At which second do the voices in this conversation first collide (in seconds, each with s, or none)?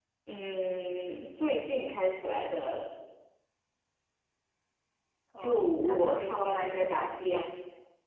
5.4 s